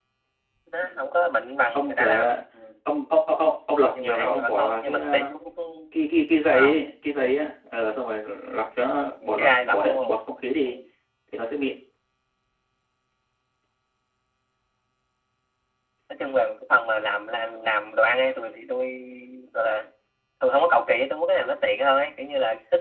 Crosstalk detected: Yes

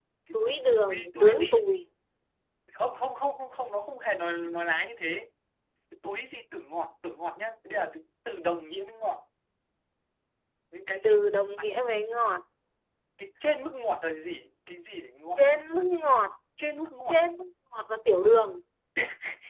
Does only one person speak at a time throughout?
No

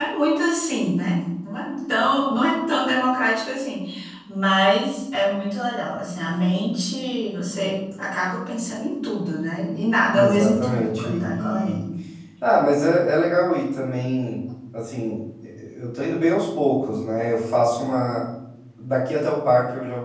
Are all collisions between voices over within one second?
No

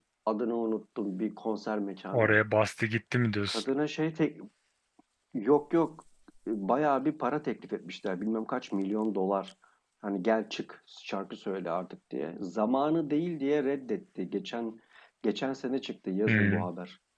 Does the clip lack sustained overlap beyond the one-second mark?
Yes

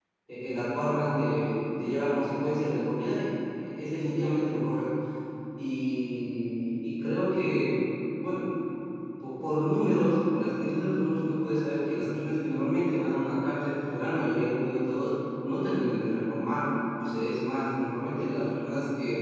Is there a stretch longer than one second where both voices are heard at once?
No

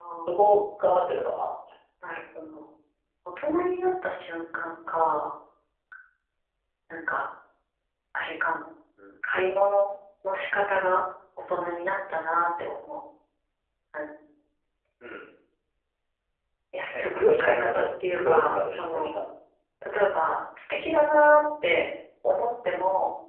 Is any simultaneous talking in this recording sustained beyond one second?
Yes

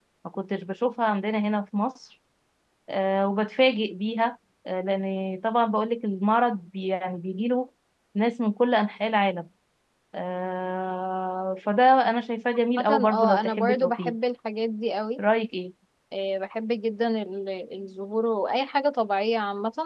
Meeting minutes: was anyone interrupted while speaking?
Yes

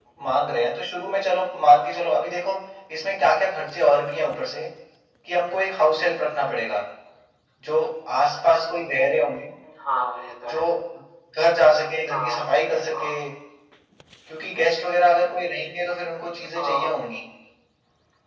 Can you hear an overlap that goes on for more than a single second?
No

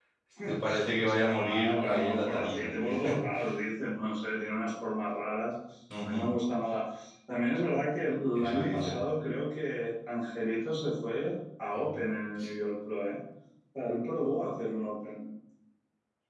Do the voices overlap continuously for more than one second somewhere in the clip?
Yes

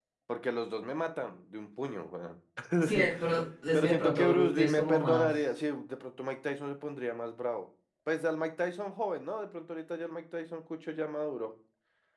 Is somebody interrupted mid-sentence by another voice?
Yes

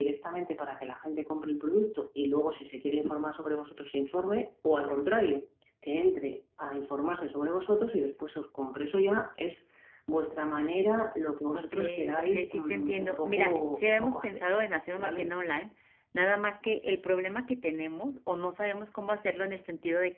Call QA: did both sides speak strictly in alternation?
No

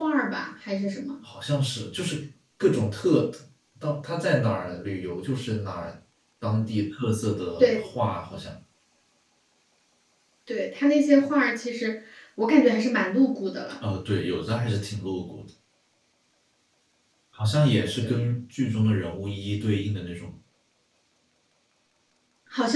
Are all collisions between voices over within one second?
Yes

